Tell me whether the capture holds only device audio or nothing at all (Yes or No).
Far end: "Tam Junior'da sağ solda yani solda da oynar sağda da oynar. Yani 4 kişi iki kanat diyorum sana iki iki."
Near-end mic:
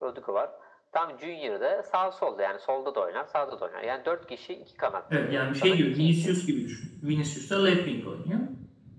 No